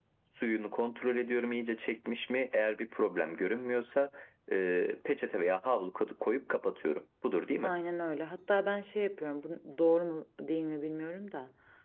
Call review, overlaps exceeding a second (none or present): none